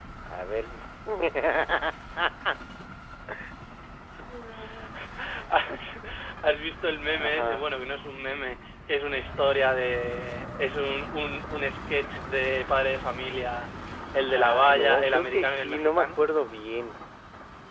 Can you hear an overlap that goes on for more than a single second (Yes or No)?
Yes